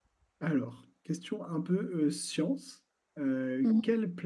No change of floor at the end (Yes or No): Yes